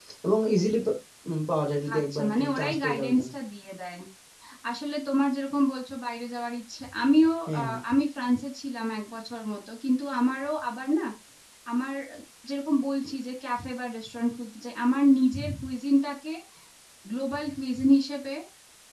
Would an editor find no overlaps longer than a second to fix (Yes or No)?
No